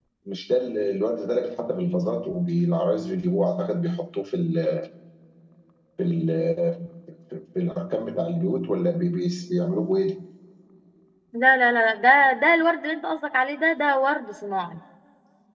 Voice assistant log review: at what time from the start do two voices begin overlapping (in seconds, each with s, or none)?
none